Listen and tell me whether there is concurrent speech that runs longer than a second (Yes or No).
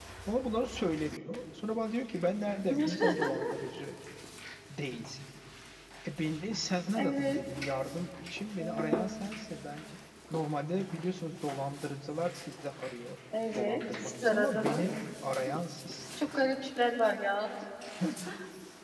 Yes